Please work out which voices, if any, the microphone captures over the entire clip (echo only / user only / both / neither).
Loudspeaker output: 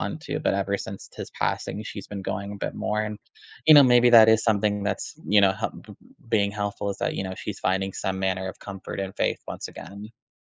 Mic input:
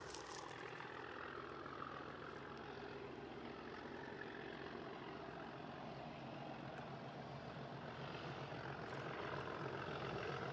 neither